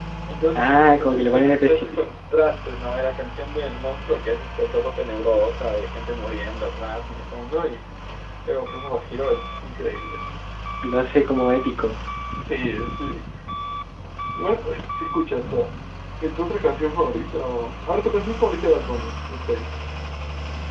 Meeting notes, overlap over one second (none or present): present